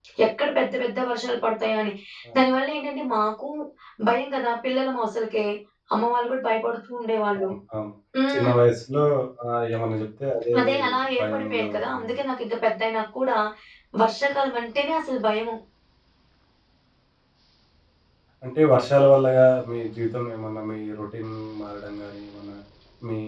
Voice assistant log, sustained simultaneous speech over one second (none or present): present